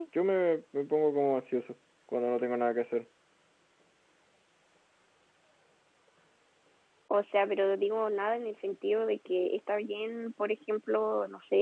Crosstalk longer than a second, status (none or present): none